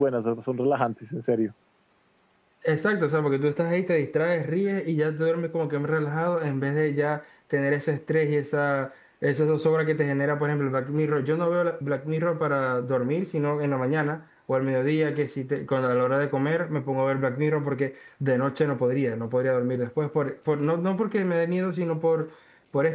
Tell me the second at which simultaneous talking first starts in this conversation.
none

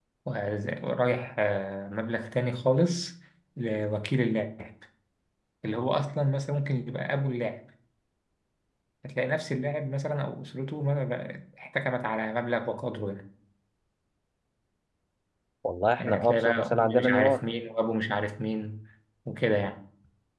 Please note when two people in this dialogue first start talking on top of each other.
16.0 s

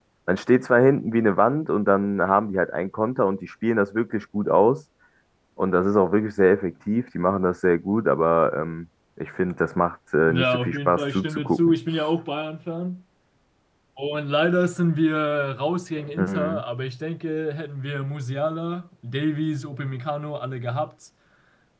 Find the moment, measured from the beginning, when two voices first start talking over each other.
10.3 s

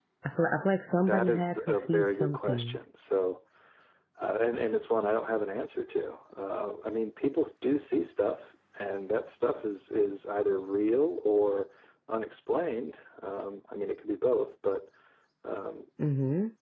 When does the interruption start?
1.0 s

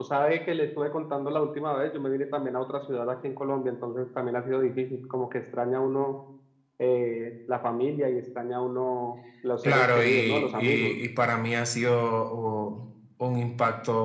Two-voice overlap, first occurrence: 9.6 s

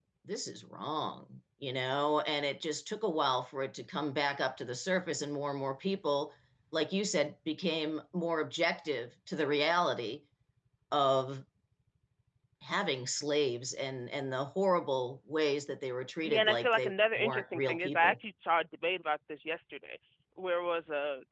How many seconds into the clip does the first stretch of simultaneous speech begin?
16.2 s

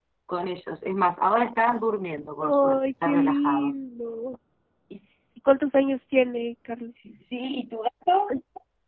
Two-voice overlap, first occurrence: 2.4 s

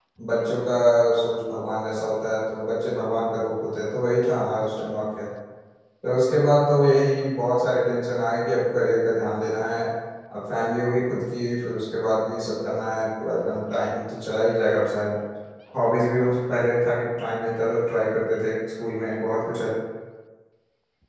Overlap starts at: none

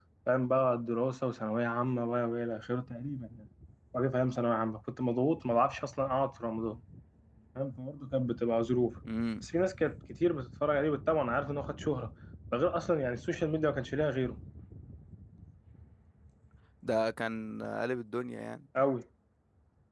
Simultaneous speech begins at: none

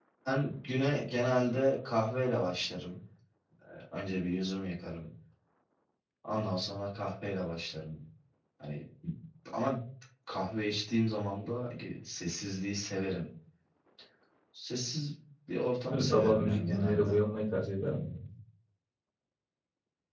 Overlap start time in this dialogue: 15.9 s

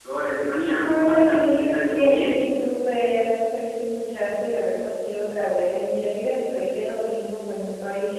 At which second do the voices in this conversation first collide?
0.8 s

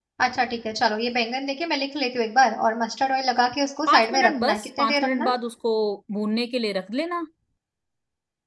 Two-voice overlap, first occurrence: 3.9 s

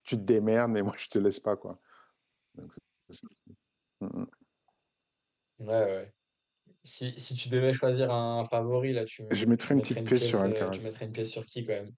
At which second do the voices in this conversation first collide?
9.3 s

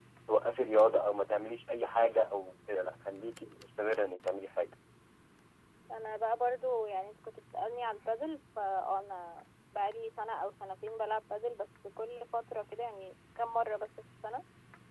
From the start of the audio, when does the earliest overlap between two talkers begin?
none

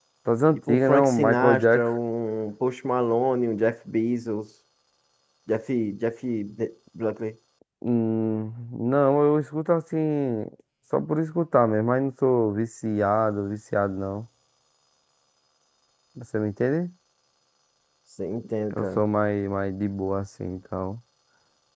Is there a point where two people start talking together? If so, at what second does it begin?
0.7 s

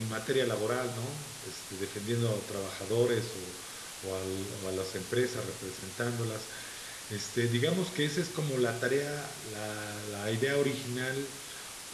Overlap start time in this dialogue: none

